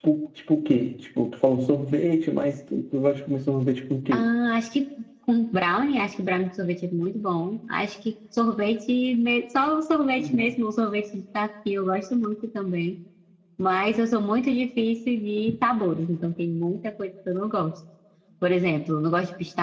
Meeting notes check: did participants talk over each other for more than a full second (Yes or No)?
No